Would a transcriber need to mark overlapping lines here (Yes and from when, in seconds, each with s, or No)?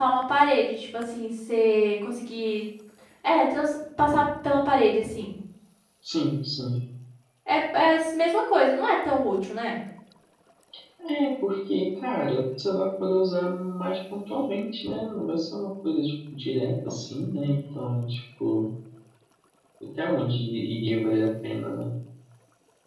No